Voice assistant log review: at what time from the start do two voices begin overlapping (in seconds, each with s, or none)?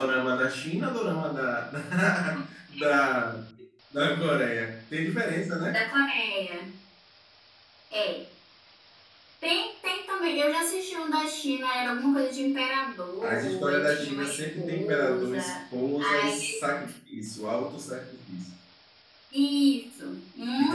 13.2 s